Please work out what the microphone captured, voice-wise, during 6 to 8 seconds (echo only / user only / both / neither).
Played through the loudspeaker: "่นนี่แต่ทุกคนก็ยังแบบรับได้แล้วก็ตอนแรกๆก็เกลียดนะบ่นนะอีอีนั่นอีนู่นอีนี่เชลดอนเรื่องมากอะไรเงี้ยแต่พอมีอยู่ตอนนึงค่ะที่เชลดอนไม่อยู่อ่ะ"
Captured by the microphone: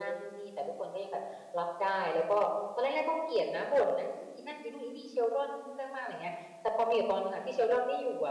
echo only